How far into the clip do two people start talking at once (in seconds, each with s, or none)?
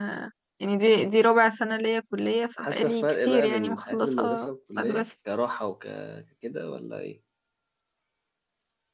2.6 s